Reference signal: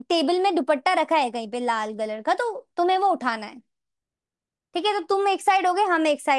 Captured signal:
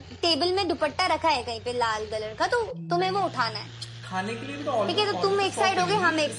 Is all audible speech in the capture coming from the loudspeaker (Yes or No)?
No